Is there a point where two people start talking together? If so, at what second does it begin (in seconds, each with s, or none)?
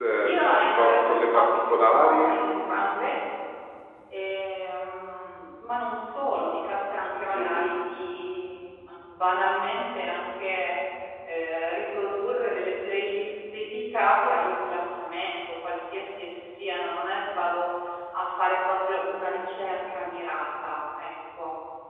0.8 s